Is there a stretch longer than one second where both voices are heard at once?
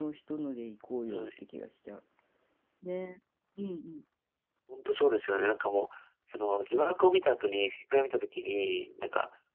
No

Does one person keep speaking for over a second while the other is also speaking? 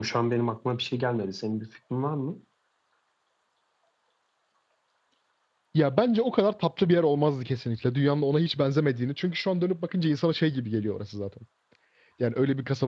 No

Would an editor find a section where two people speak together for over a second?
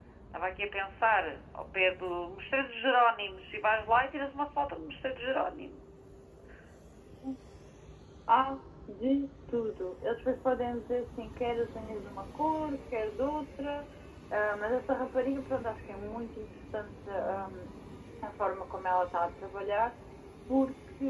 No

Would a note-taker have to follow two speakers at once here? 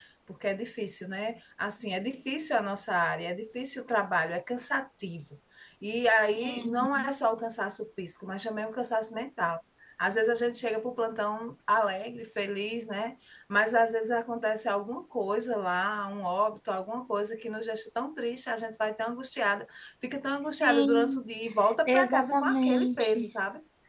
Yes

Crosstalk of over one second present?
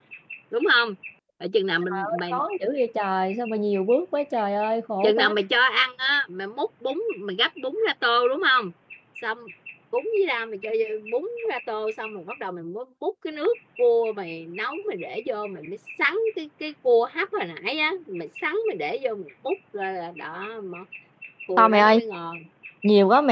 No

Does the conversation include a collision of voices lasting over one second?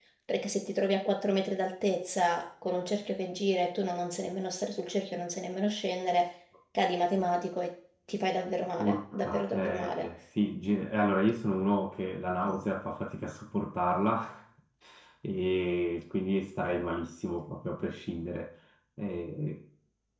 Yes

